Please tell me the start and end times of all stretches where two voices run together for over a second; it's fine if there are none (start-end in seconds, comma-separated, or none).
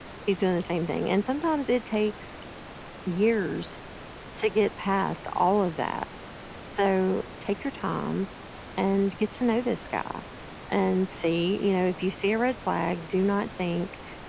none